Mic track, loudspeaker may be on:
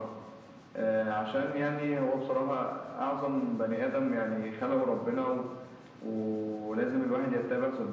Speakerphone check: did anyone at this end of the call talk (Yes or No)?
No